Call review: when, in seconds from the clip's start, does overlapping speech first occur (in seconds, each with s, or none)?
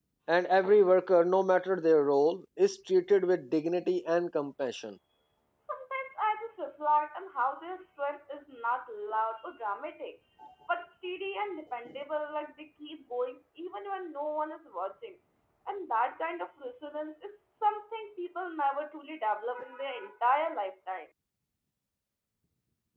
none